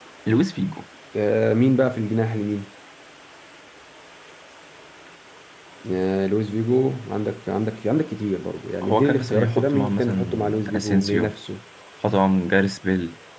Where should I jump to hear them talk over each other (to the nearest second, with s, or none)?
9 s